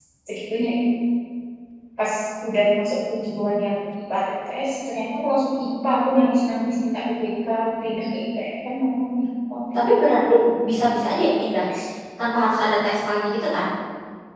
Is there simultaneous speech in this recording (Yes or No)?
No